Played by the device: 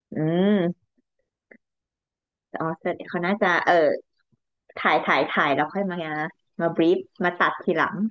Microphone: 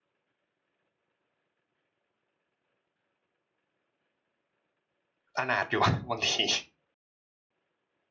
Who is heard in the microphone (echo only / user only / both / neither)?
user only